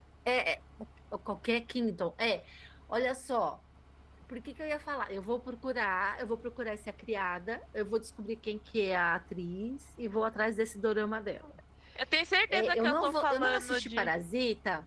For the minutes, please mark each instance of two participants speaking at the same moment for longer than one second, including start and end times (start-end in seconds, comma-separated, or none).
12.5-14.1